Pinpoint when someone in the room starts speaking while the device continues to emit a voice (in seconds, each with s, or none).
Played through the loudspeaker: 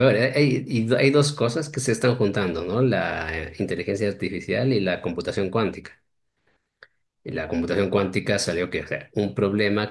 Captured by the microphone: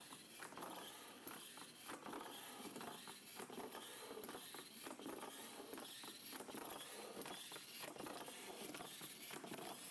none